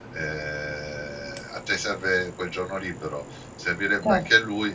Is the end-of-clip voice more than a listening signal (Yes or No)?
No